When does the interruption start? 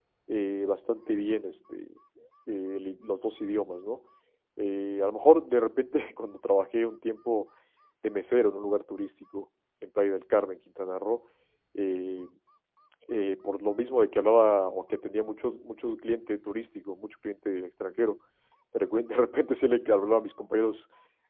none

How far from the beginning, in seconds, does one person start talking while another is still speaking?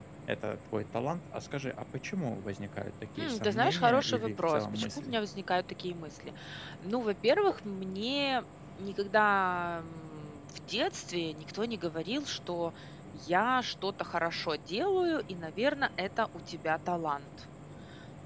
3.2 s

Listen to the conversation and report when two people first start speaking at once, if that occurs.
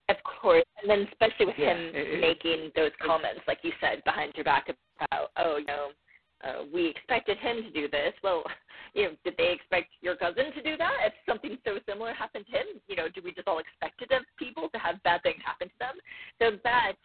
1.4 s

